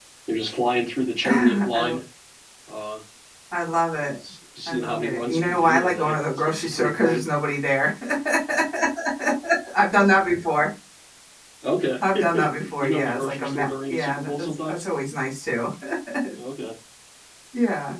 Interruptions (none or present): present